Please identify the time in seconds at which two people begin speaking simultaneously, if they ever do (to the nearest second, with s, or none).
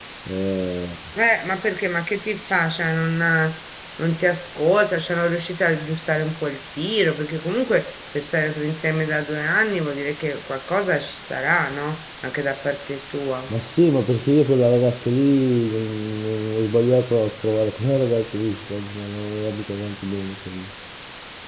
none